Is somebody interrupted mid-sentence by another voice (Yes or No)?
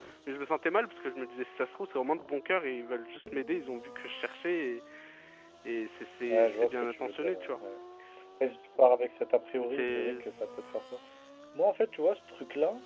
Yes